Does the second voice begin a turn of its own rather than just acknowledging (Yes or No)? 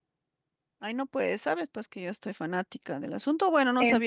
No